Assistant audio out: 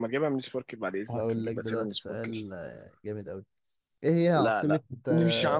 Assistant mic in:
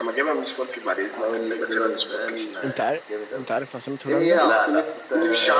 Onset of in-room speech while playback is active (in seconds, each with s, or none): 2.6 s